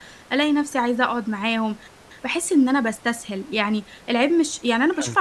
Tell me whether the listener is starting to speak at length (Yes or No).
No